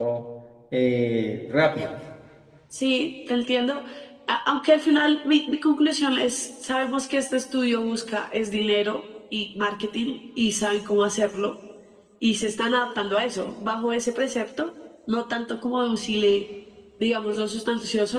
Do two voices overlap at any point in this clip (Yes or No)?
No